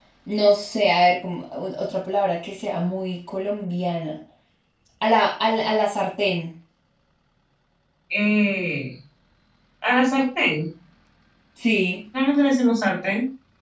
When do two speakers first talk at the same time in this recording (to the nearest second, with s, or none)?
none